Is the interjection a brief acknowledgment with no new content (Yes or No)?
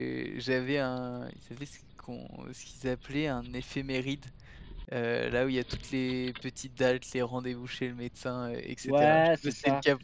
No